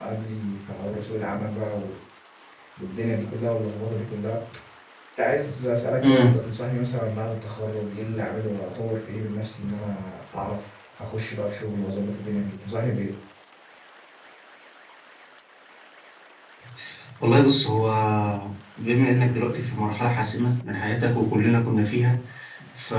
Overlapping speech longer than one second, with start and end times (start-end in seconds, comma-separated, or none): none